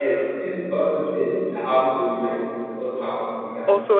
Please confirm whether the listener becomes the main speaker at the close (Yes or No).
Yes